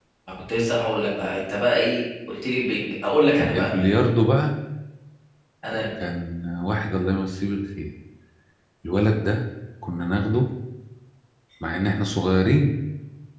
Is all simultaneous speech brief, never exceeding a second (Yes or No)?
Yes